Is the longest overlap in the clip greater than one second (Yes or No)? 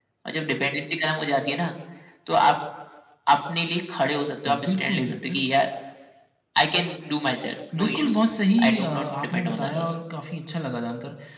Yes